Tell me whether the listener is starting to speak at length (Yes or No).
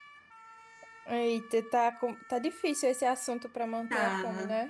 Yes